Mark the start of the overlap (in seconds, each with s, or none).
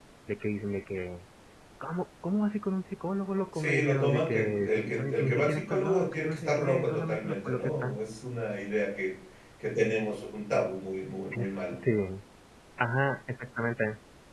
3.5 s